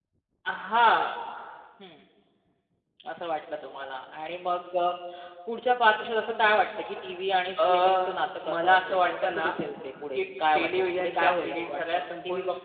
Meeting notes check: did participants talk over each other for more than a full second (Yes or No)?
Yes